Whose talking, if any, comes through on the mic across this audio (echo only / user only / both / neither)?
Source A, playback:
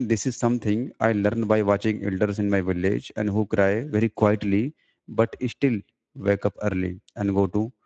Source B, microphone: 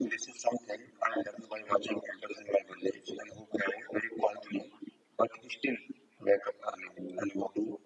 echo only